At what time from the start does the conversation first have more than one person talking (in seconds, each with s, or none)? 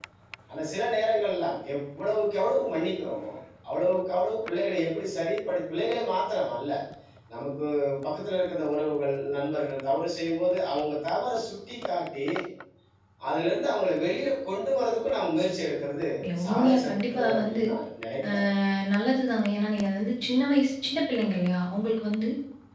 16.4 s